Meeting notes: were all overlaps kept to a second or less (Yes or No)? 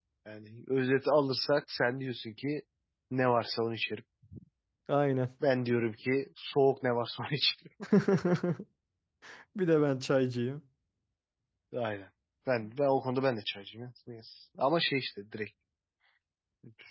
Yes